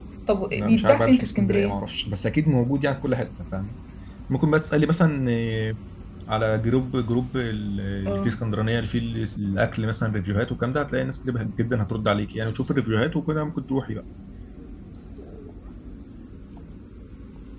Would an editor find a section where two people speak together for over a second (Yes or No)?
Yes